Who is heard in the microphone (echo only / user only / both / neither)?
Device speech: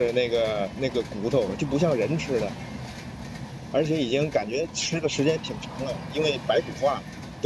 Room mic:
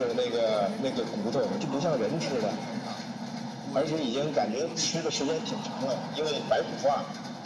both